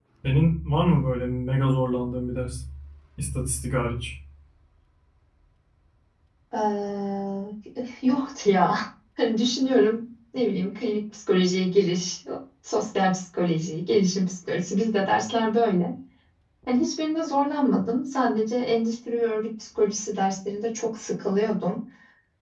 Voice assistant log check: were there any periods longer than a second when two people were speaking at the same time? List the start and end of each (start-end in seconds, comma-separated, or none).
none